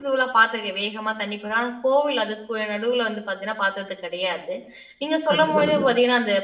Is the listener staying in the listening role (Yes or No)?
Yes